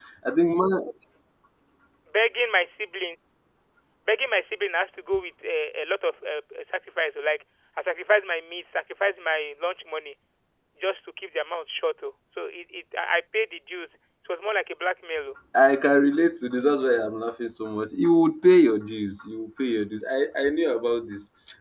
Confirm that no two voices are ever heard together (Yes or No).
Yes